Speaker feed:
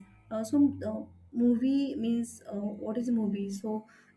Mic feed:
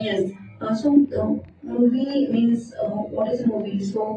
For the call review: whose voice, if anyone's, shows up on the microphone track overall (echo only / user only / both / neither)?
echo only